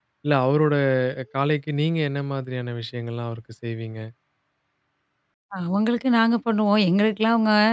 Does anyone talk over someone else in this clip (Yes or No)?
No